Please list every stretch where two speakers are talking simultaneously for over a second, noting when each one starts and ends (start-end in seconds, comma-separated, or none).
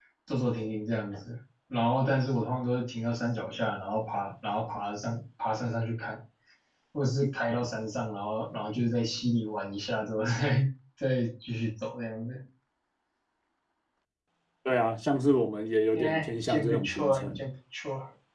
15.9-17.5